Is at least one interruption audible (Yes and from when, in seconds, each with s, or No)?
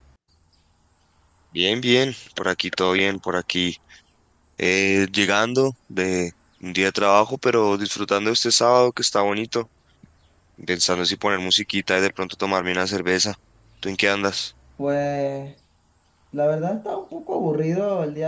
No